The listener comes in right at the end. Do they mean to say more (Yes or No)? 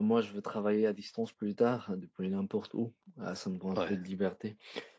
No